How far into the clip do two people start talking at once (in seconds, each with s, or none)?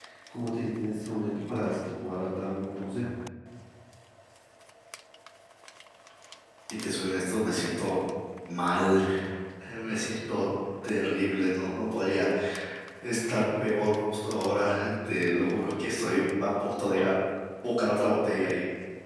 none